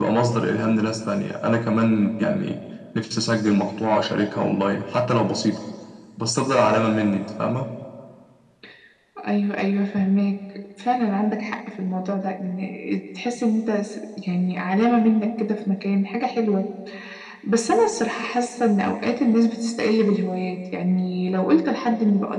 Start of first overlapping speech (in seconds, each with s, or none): none